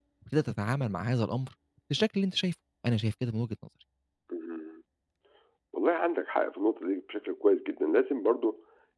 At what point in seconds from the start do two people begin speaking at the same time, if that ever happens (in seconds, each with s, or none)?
none